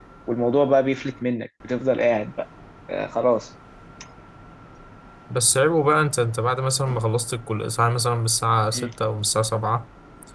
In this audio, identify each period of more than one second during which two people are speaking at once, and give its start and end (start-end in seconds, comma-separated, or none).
none